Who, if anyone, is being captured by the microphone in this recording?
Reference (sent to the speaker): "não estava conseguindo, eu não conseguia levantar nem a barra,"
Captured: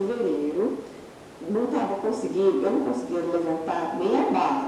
echo only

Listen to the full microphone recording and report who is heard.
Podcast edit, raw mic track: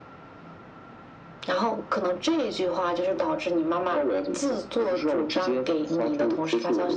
echo only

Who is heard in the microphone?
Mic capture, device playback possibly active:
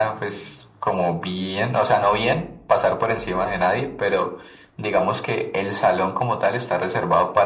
echo only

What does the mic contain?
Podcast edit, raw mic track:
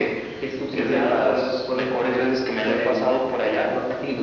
echo only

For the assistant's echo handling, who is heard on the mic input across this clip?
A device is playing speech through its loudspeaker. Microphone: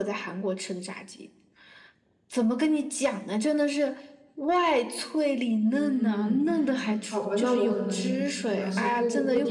both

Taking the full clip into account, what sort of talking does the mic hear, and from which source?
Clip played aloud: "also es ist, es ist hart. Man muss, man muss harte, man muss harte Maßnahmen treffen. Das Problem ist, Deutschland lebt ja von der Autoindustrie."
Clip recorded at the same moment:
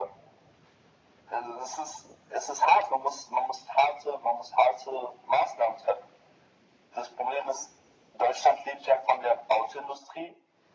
echo only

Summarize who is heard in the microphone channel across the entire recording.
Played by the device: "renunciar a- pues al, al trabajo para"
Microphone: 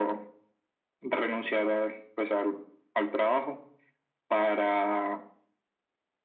echo only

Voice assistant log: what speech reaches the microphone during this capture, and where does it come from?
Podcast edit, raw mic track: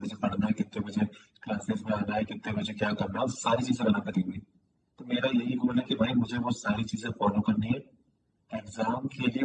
echo only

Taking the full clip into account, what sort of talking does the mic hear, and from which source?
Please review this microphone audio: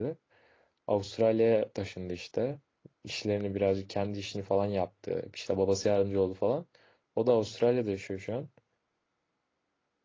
user only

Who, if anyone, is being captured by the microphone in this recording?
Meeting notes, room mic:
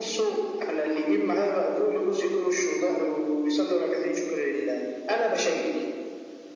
echo only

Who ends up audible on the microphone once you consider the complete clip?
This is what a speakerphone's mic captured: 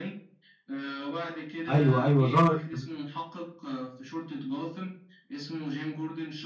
both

